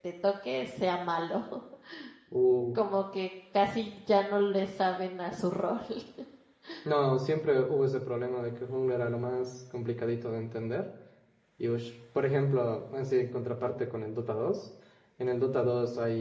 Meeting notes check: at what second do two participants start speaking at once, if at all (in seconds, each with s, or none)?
none